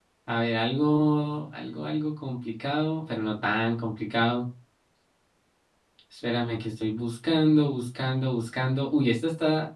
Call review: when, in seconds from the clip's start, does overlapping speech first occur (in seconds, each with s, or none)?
none